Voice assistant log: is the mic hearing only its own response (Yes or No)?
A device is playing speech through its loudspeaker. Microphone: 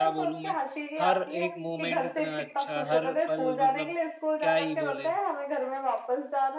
No